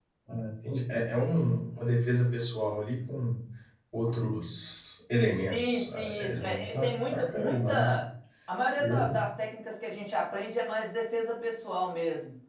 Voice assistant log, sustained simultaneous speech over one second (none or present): present